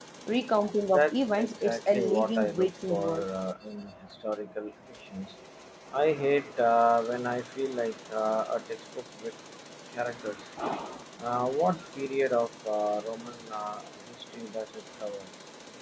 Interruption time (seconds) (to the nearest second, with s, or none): 1 s